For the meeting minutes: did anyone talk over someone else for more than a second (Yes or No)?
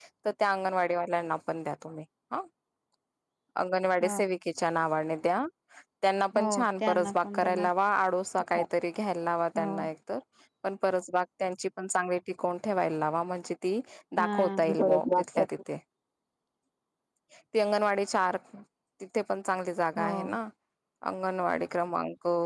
Yes